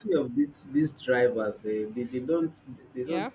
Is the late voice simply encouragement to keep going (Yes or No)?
Yes